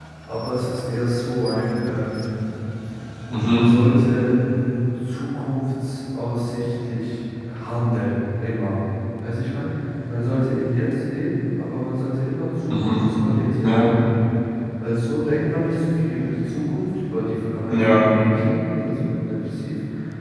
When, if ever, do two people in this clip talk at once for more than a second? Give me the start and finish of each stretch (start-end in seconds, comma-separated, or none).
none